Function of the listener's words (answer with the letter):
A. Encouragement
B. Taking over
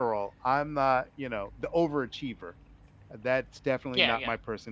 A